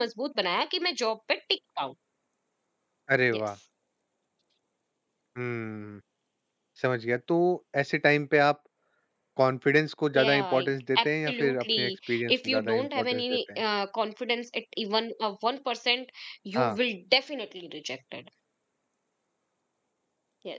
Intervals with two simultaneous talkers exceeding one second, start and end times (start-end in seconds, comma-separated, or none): 10.1-13.6